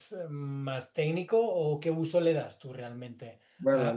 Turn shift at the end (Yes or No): Yes